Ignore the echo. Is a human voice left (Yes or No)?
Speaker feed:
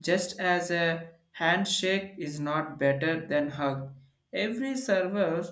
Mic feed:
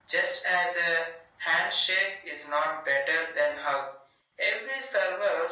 No